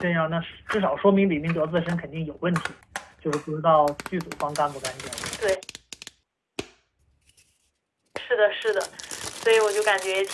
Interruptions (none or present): none